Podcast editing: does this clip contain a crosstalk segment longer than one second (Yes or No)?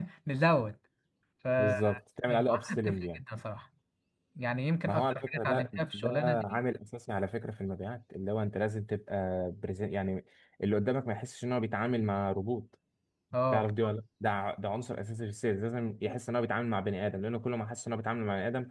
Yes